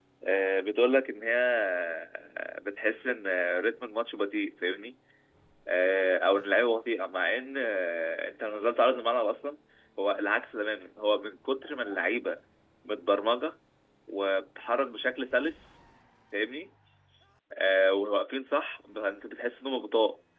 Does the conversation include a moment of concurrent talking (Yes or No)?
No